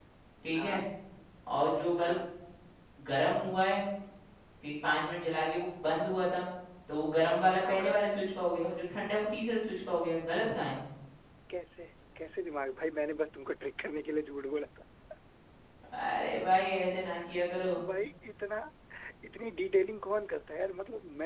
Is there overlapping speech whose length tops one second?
No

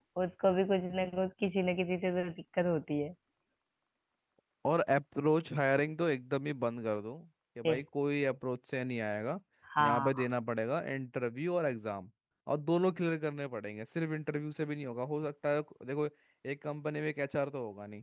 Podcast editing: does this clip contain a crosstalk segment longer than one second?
No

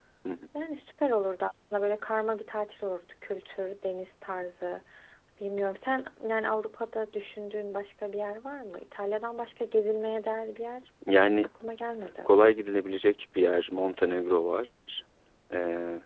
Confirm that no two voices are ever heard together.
Yes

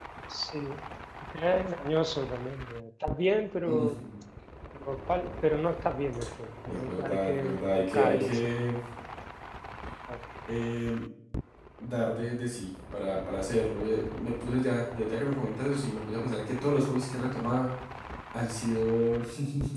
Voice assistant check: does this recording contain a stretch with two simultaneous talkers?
Yes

